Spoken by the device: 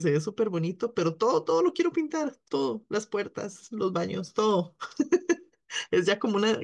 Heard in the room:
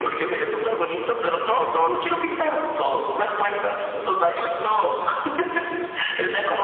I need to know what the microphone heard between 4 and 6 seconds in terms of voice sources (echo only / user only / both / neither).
echo only